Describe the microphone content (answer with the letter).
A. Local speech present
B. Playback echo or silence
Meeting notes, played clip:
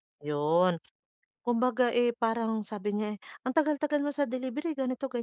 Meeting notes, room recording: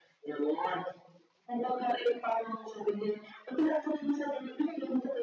B